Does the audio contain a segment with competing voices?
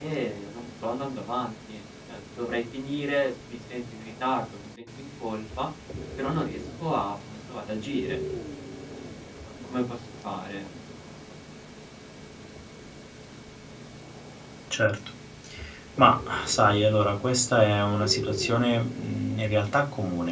No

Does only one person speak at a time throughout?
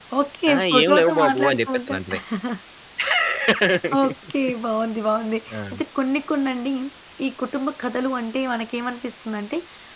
No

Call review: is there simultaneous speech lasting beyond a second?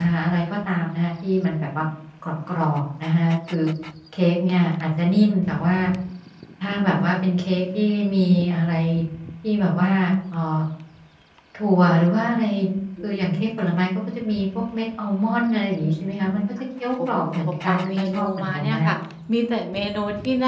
Yes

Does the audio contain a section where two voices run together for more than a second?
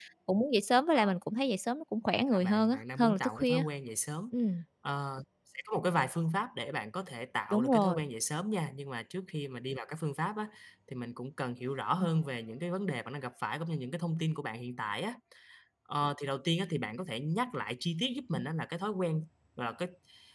Yes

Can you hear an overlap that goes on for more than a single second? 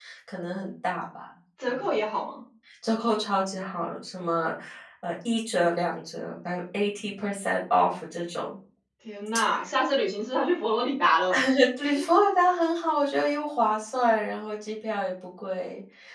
No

